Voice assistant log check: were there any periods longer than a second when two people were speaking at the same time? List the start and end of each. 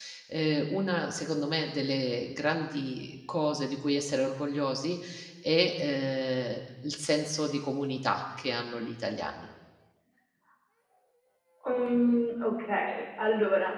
none

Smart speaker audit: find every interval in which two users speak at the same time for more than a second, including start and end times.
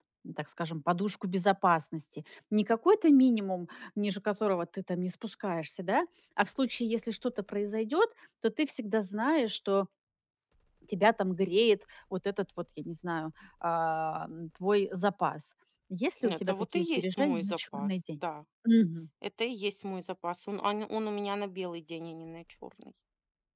16.2-18.2

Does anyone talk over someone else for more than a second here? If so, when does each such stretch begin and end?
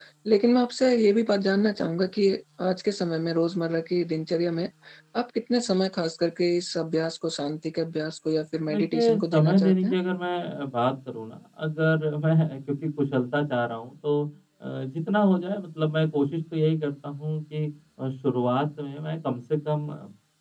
8.7-9.9

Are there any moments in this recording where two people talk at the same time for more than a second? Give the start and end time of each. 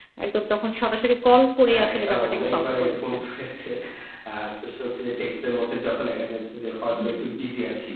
1.7-3.2

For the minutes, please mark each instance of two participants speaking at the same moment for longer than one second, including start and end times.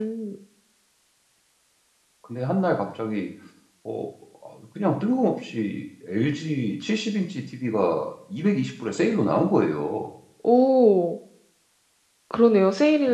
none

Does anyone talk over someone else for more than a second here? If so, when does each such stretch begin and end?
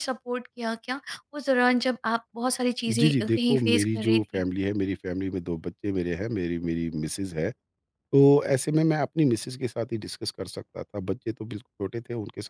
2.9-4.2

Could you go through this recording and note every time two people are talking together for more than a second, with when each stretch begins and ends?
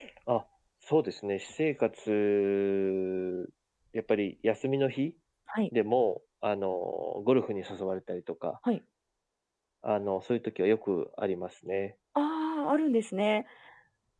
none

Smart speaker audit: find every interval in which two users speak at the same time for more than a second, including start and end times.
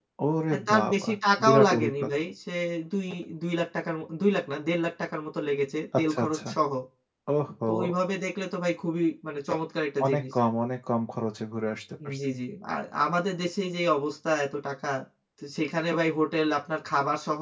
0.5-2.1

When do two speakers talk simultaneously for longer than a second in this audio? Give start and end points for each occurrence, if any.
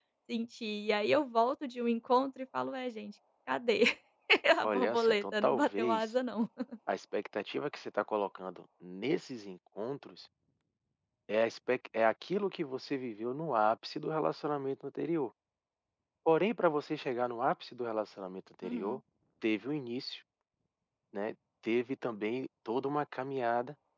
4.6-6.1

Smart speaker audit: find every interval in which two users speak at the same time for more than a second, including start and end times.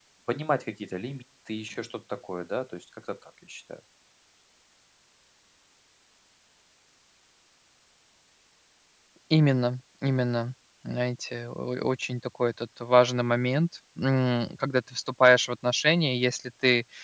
none

